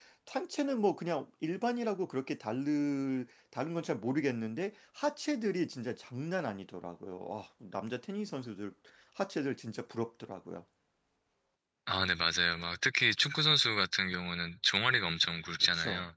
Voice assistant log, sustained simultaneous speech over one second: none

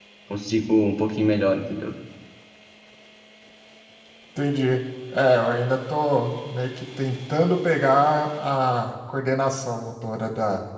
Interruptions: none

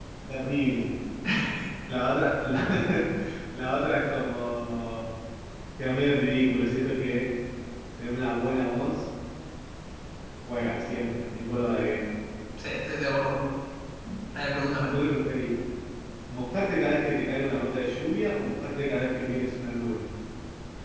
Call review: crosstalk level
none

